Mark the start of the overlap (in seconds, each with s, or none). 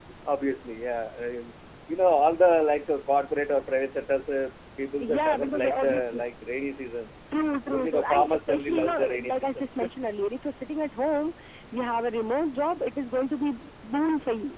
5.0 s